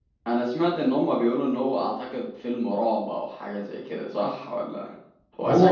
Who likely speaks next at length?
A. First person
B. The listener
B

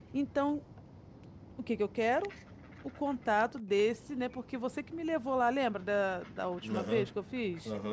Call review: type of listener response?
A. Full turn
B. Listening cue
A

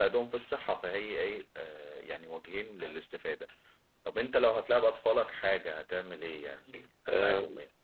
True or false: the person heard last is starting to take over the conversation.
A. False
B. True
B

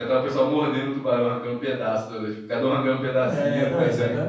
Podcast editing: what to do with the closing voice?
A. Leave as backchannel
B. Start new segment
B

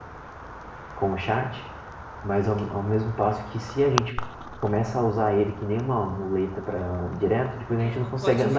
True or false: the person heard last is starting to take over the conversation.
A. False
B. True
B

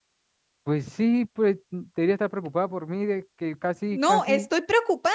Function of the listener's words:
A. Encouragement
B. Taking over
B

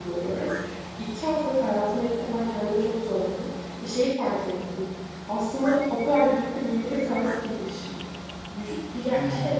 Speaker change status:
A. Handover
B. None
B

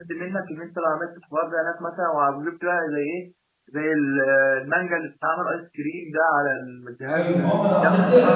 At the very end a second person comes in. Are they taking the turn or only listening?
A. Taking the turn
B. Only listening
A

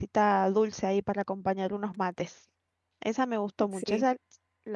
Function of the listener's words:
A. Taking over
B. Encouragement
B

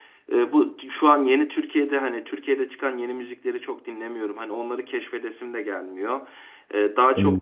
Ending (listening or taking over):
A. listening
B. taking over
A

